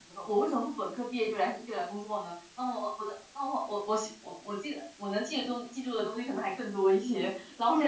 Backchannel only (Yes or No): Yes